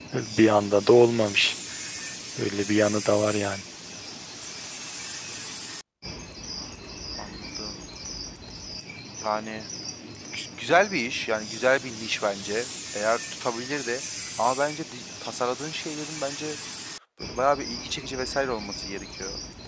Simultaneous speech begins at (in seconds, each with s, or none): none